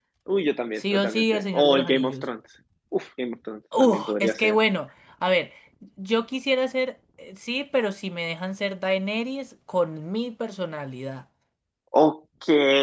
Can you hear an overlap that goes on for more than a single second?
Yes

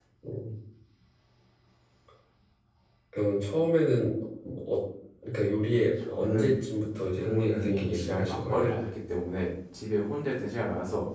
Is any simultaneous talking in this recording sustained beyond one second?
Yes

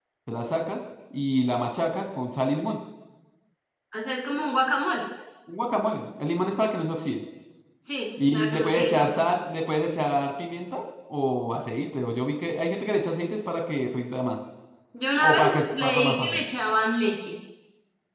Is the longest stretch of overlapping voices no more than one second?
No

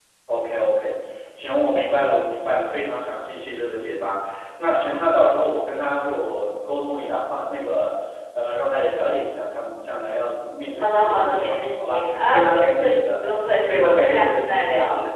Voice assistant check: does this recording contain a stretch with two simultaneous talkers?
Yes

